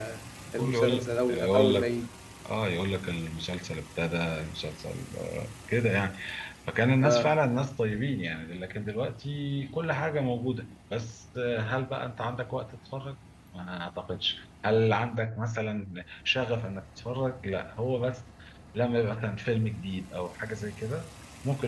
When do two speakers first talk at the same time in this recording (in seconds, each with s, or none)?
0.6 s